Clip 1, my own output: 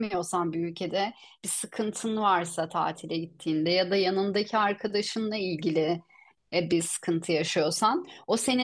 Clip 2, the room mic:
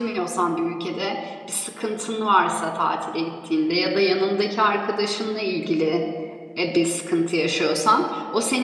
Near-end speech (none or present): none